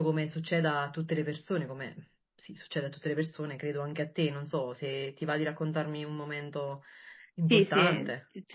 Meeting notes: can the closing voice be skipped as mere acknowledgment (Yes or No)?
No